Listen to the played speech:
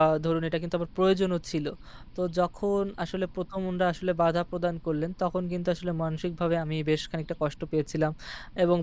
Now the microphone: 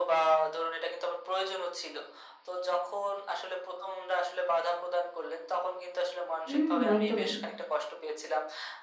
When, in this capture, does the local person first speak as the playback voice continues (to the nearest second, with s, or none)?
6 s